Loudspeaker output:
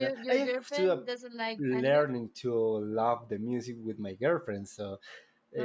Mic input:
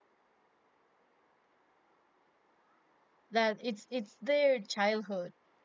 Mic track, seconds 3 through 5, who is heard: user only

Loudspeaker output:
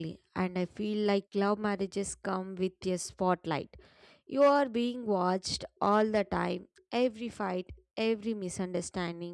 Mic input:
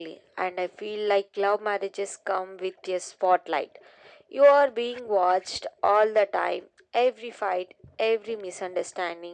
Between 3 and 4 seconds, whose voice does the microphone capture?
echo only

